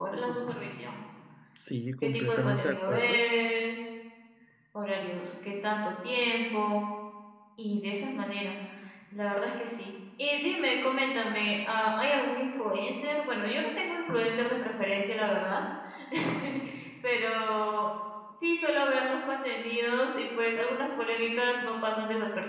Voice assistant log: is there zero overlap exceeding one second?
No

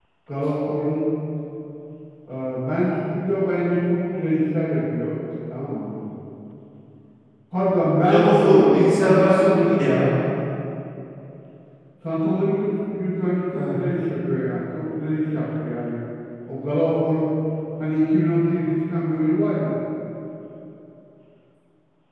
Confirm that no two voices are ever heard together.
No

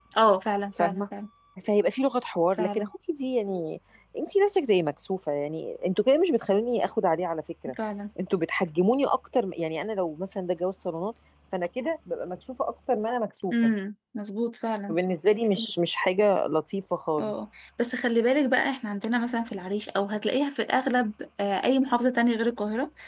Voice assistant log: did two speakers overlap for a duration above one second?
No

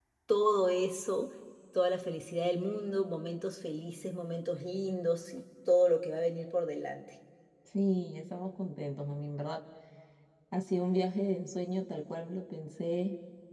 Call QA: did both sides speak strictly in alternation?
Yes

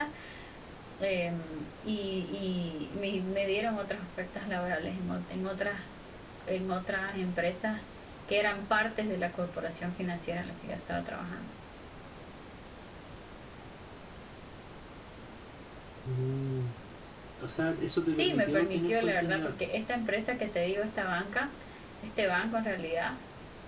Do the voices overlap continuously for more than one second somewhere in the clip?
Yes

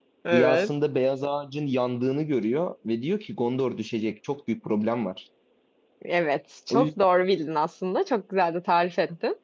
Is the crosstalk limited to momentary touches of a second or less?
Yes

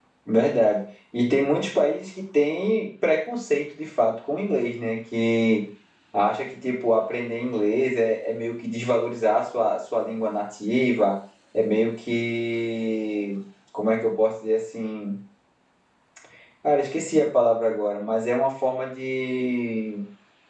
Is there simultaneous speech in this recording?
No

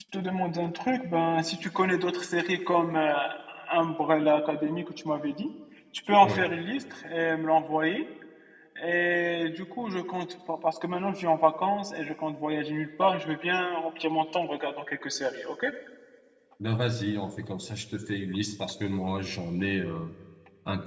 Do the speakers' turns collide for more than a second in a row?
No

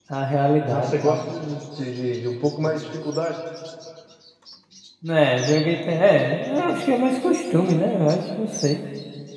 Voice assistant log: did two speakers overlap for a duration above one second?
No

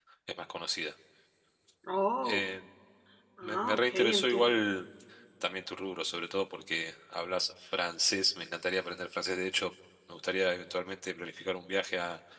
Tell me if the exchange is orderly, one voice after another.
No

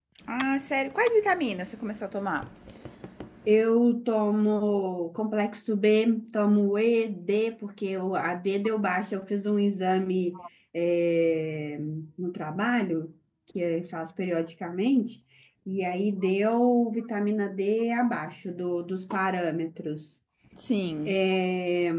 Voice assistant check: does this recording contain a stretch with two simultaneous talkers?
No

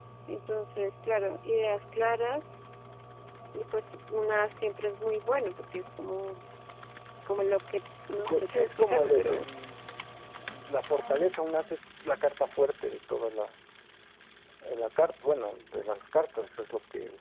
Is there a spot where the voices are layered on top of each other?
Yes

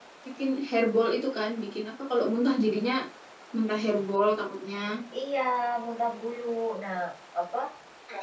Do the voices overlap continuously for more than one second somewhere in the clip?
No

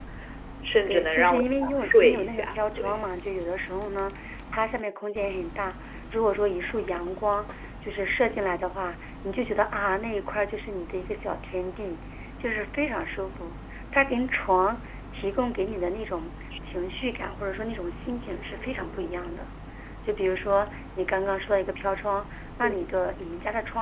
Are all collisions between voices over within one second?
No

